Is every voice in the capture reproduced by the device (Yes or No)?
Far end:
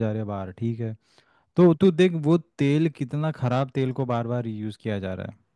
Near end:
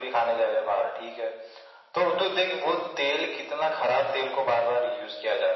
Yes